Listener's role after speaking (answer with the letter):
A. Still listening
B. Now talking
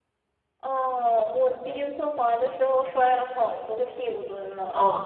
B